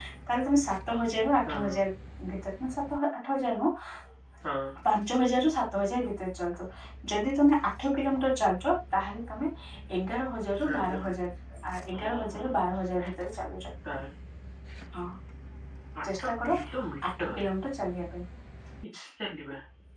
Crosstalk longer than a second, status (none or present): none